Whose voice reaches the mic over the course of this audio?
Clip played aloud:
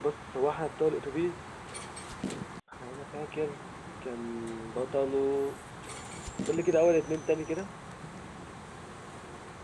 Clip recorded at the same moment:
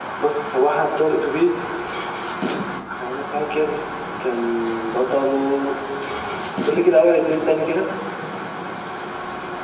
echo only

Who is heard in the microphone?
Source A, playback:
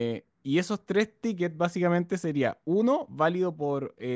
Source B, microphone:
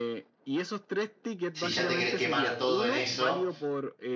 both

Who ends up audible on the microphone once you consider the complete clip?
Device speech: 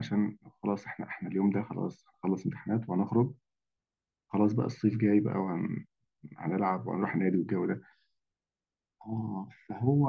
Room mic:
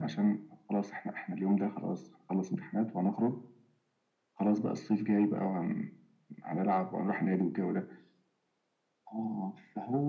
echo only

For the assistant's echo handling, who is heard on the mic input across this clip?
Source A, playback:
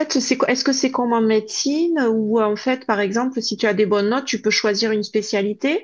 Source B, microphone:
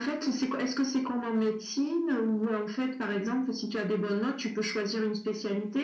echo only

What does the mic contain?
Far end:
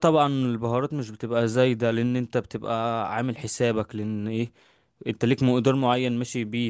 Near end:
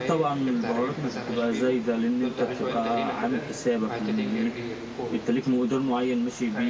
both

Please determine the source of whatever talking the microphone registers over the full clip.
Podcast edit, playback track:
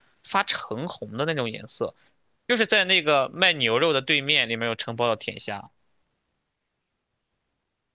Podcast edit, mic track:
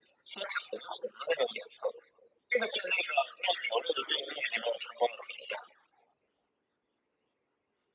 echo only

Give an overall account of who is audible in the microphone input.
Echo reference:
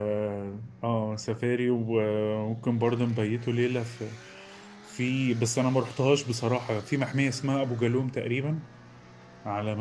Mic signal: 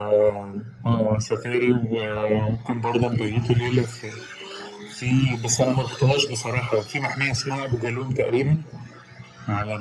echo only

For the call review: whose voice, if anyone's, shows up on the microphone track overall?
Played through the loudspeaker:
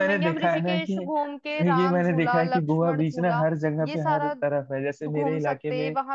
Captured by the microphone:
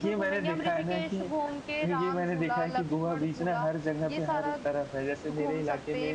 echo only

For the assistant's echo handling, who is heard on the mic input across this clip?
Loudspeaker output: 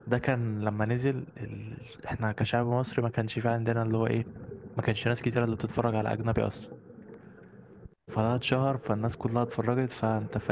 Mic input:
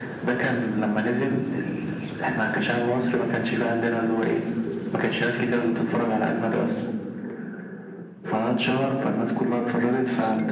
echo only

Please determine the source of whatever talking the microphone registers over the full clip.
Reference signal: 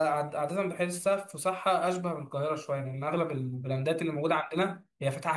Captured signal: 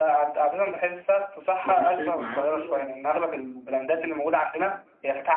both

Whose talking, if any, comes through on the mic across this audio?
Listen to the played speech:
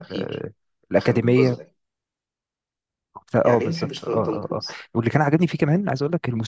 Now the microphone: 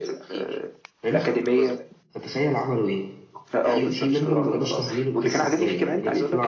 both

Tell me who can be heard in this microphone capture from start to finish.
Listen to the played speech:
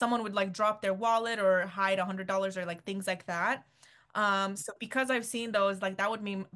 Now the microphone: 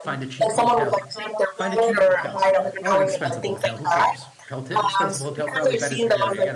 both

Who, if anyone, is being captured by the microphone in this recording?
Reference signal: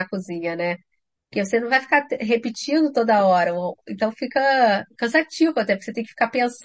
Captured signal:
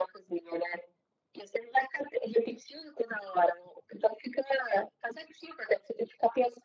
echo only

